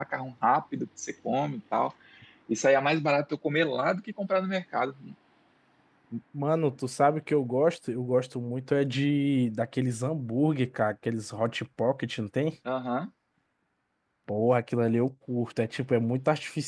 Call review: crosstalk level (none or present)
none